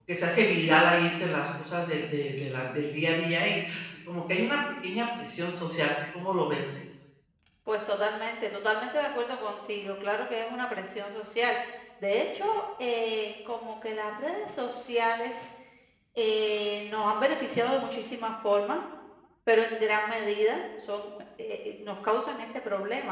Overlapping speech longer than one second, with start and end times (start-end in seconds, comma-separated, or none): none